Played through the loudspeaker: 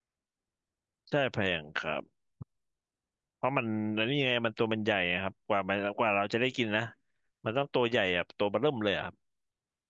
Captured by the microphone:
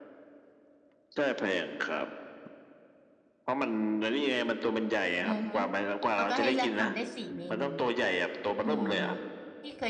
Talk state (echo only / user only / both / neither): both